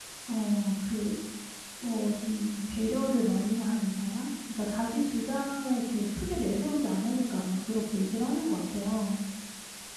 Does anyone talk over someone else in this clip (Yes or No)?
No